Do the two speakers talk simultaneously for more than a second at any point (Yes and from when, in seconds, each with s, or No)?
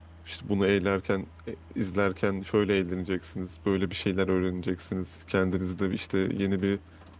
No